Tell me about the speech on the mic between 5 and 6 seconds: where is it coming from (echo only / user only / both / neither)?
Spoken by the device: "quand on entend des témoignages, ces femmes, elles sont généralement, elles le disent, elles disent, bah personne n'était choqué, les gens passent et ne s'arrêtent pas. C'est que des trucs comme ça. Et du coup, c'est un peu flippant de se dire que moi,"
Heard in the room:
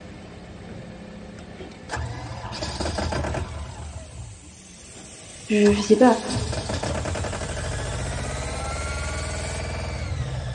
user only